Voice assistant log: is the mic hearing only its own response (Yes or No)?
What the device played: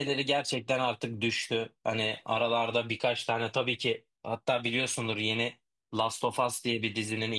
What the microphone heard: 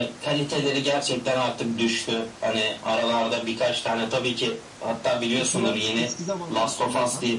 No